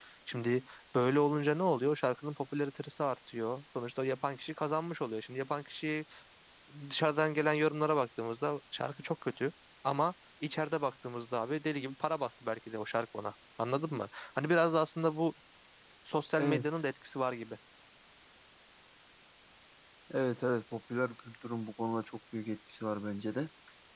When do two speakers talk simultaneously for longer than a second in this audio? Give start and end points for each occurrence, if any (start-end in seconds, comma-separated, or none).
none